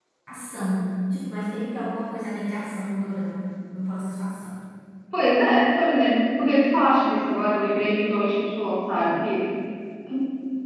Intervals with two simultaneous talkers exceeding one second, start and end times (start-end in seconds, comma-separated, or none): none